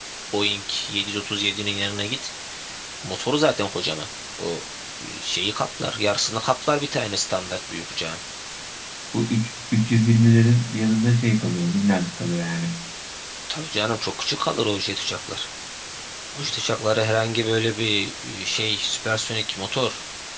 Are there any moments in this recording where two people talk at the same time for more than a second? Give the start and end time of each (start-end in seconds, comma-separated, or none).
none